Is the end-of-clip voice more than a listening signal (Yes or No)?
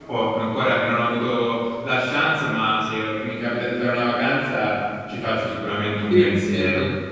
Yes